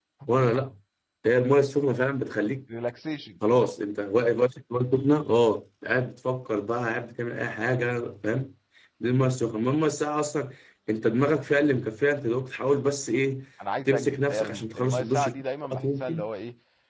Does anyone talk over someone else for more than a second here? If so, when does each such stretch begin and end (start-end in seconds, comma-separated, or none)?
13.8-16.3